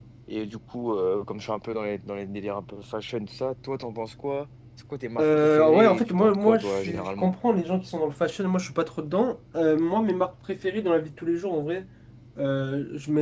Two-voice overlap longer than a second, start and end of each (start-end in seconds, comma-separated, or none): 5.2-7.3